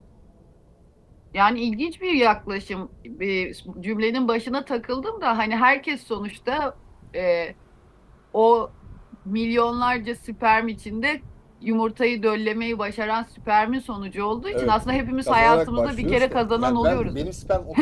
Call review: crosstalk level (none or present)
present